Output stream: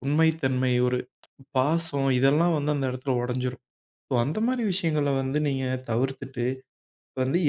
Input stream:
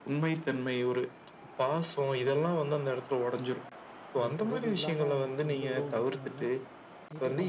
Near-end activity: present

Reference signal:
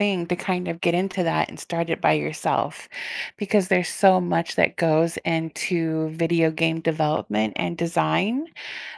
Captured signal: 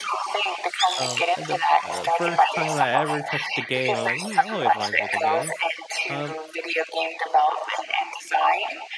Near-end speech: present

